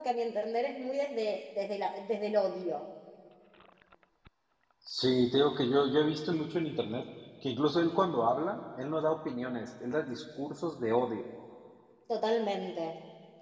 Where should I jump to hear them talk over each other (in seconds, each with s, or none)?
none